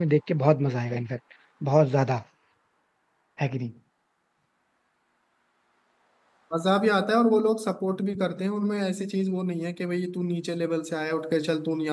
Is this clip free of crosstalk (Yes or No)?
Yes